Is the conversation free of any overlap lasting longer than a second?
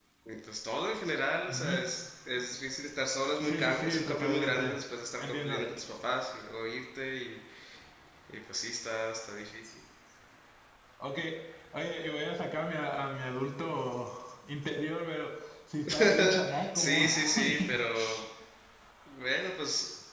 No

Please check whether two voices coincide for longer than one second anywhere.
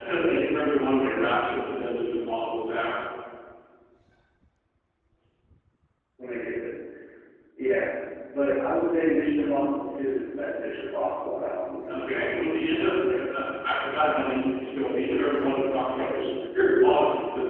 Yes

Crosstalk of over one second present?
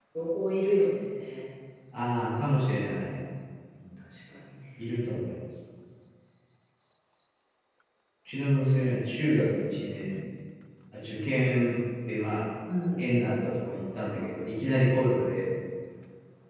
No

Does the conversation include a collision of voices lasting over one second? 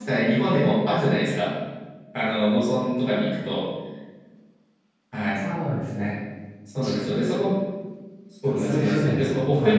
Yes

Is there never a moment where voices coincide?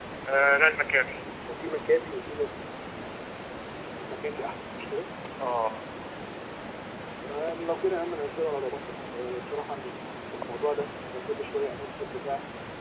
Yes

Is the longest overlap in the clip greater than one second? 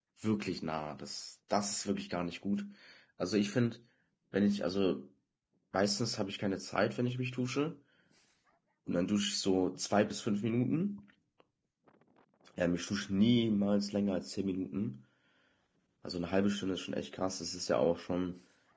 No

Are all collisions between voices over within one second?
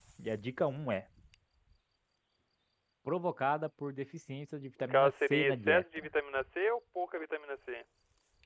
No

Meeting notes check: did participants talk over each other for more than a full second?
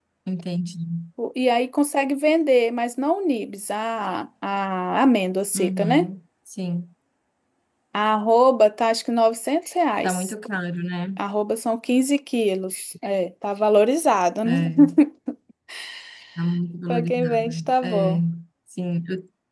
Yes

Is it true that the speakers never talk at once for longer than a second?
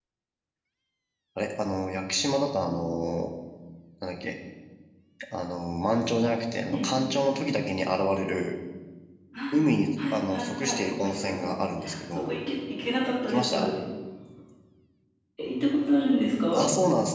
No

